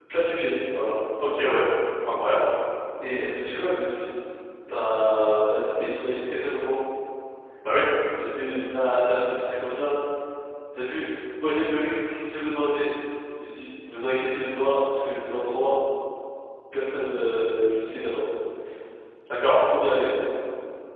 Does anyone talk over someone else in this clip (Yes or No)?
No